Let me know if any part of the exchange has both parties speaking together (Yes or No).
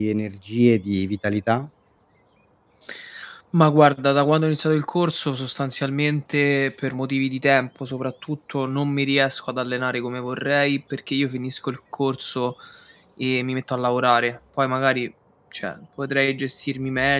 No